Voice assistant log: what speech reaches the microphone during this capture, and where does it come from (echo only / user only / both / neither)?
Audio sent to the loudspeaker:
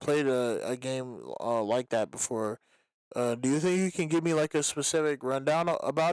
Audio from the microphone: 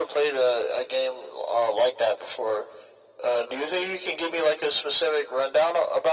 echo only